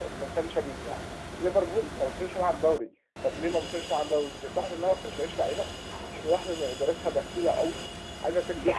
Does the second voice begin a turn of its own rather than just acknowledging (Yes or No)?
Yes